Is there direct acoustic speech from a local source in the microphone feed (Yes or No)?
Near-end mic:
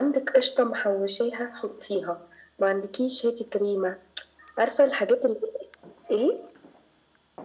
No